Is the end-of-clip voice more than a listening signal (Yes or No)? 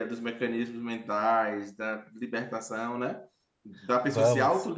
No